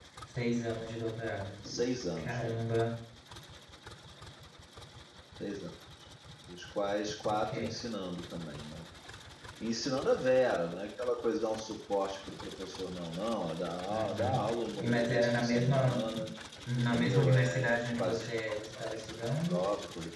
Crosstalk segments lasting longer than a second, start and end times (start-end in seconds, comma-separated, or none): 13.9-16.1, 16.9-18.3